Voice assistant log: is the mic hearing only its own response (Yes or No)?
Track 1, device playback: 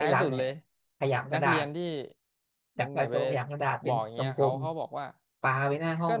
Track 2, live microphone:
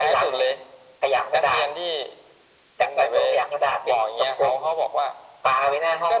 Yes